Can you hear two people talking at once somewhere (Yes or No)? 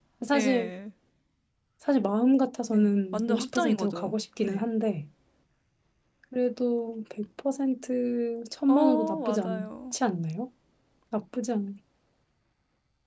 Yes